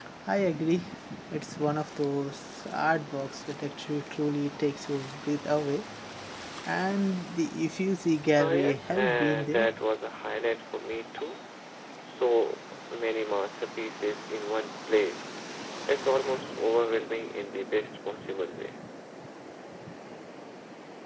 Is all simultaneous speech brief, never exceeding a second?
No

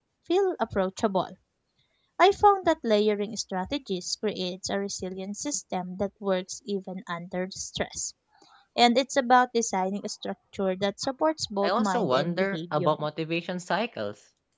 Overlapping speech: Yes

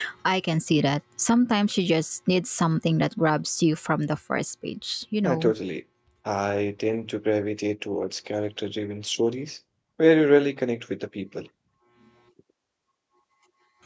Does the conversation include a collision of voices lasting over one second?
No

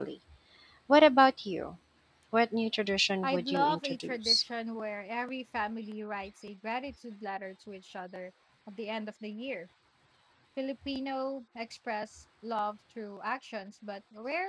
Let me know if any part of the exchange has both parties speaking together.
Yes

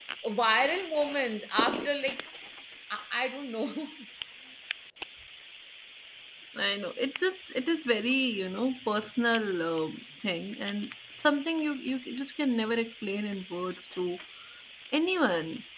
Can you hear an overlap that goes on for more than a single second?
No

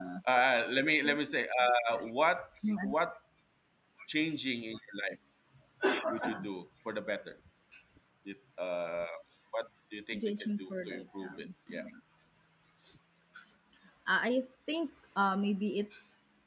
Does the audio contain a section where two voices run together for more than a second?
Yes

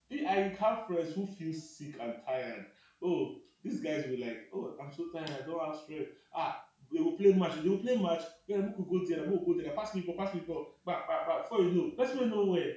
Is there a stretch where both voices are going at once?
No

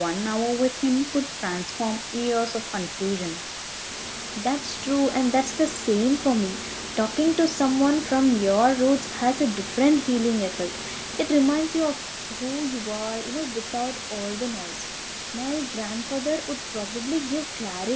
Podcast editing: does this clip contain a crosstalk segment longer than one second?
No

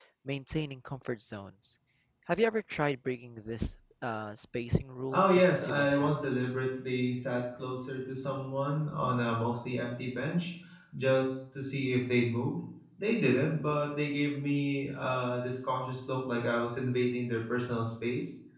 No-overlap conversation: No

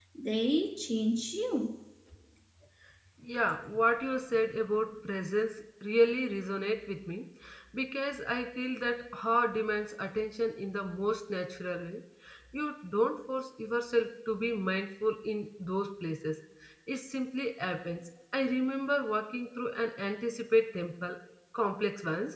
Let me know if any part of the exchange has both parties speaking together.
No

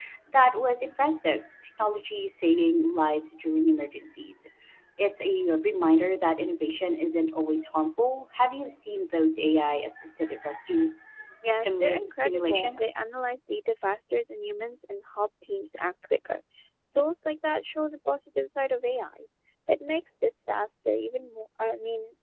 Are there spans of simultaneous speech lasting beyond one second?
Yes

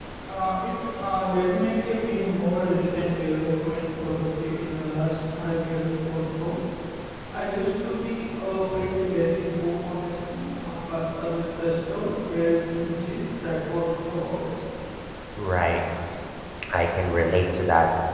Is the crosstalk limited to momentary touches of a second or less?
Yes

